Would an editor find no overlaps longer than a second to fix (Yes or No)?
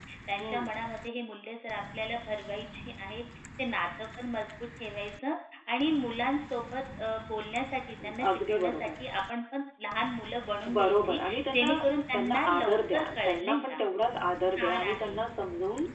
No